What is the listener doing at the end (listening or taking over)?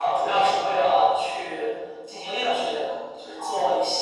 listening